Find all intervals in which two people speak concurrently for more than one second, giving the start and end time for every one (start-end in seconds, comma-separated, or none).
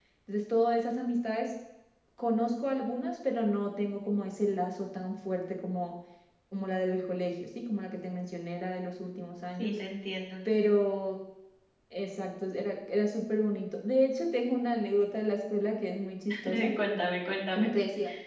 none